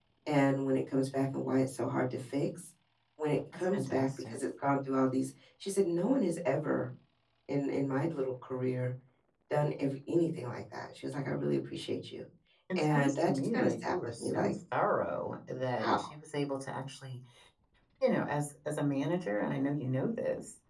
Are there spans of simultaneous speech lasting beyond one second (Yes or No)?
Yes